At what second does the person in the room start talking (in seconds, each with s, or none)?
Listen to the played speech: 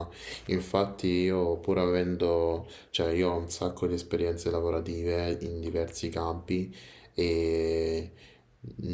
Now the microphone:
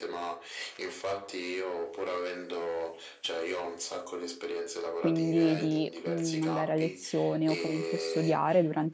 4.9 s